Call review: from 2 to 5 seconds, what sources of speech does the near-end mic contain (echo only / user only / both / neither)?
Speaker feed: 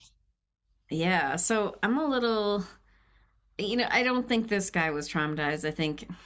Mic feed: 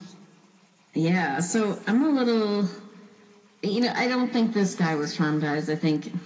echo only